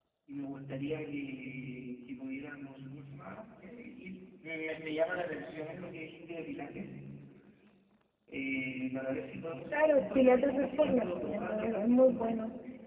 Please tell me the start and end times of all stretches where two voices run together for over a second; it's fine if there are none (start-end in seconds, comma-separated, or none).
9.7-12.2